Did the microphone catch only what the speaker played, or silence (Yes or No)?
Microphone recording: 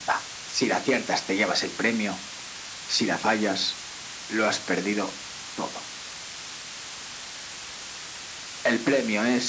Yes